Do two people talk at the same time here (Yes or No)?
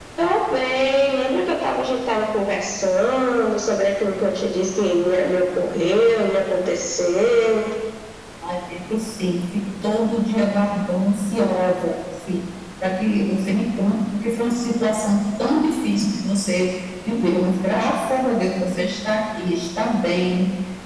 No